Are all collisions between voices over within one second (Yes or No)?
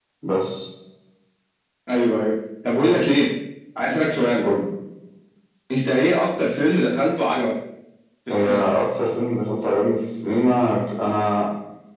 Yes